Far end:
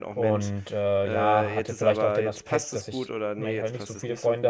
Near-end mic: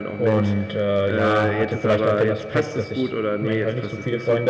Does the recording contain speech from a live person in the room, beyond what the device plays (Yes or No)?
No